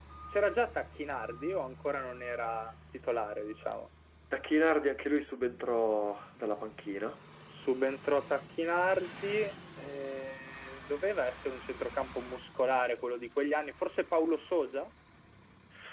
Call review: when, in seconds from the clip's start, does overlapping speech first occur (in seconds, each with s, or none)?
none